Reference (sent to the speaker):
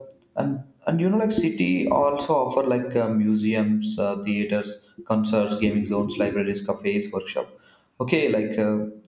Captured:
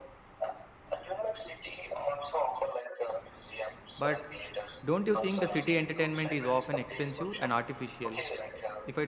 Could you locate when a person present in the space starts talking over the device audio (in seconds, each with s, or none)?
3.9 s